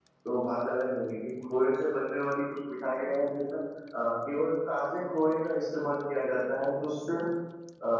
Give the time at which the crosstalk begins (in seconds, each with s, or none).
none